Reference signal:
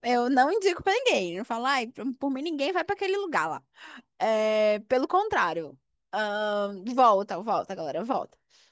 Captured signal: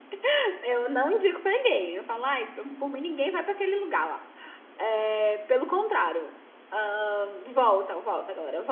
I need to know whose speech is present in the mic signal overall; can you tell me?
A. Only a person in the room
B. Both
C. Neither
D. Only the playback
D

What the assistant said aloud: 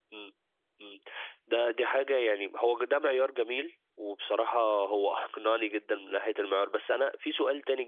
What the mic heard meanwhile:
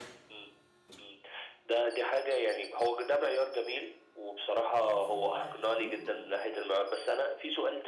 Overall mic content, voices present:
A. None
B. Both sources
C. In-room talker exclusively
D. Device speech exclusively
B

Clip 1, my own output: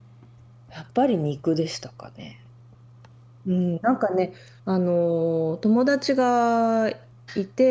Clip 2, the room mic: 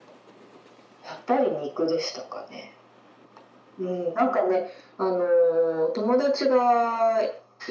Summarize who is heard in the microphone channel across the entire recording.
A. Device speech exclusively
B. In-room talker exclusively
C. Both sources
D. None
A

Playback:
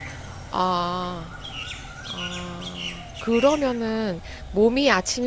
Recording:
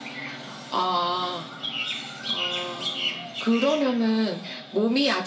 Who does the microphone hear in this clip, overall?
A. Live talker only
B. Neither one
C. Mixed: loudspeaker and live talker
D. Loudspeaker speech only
D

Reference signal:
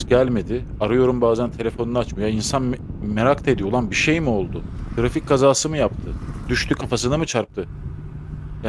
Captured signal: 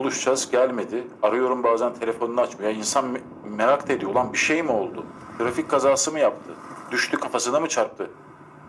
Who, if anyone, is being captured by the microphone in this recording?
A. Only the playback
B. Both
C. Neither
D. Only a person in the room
A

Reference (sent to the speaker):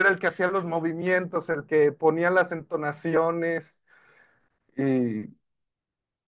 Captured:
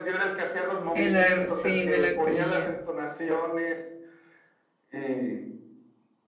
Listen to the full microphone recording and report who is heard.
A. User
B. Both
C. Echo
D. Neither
B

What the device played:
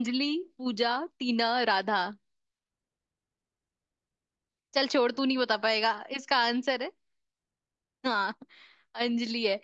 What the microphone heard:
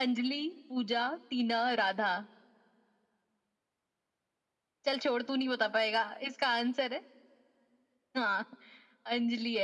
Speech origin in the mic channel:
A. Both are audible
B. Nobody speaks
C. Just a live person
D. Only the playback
D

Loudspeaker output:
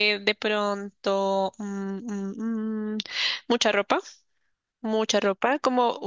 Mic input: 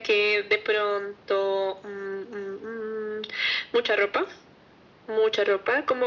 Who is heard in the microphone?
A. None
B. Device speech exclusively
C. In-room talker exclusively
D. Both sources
B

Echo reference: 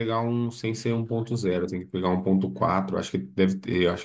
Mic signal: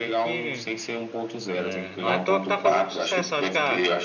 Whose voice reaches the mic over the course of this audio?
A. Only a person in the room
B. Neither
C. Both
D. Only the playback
C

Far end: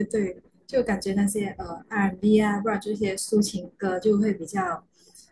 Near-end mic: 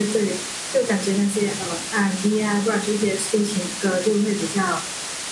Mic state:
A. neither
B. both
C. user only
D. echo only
D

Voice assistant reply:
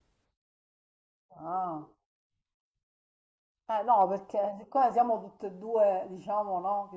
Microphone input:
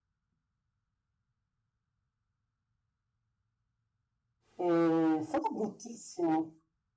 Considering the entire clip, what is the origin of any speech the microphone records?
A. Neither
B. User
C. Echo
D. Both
B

